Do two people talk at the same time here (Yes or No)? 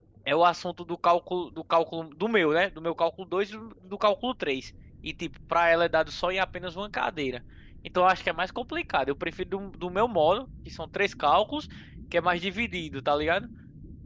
No